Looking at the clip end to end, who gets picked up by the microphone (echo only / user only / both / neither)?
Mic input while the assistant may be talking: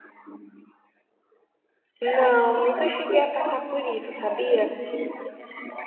both